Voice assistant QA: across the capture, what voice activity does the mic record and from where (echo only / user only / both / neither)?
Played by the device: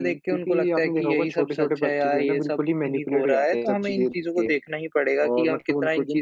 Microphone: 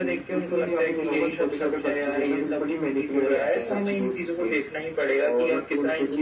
echo only